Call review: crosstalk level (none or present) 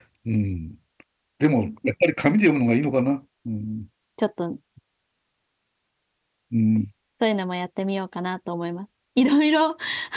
none